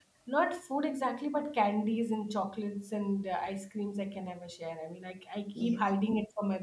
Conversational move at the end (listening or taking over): listening